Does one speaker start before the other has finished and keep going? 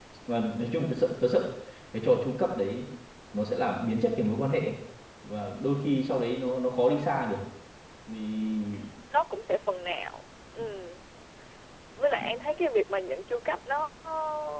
No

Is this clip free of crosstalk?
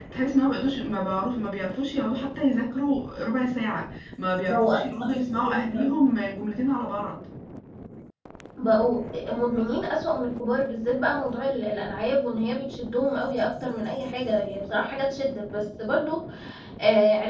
No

